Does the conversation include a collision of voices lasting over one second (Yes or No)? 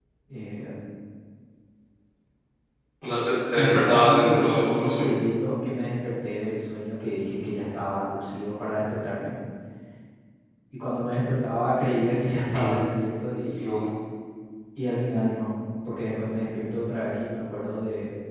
Yes